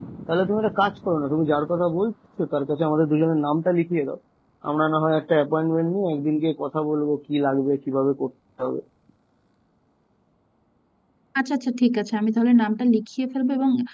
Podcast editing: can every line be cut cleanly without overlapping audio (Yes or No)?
Yes